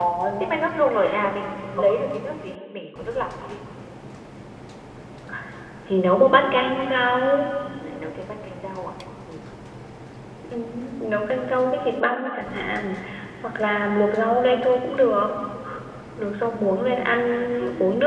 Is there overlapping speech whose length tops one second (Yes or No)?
No